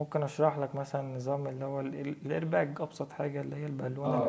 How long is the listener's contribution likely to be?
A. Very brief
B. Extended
B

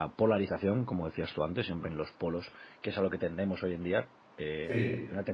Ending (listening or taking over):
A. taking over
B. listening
B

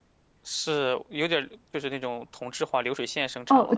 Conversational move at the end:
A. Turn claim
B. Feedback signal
A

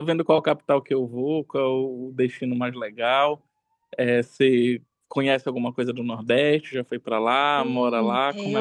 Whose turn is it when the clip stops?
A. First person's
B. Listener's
B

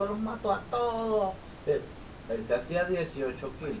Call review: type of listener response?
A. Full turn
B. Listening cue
B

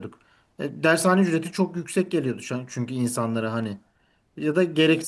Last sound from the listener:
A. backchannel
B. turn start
A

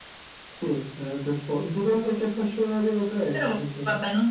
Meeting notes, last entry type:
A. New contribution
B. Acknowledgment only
A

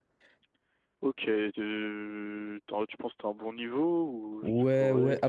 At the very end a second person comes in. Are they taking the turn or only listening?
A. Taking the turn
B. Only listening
A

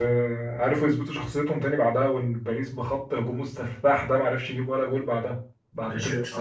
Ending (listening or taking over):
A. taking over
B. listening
A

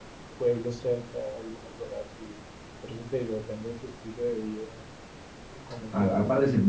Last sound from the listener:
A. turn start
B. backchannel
A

